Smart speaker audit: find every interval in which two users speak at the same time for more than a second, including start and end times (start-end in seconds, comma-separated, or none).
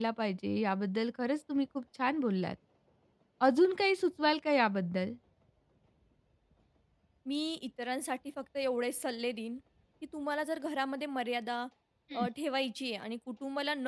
none